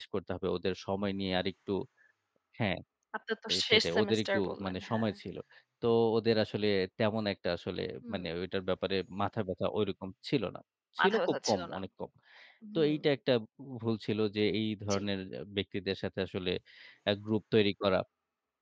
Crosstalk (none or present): present